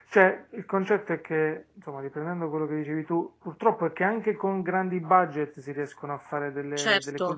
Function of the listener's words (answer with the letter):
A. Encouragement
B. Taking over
B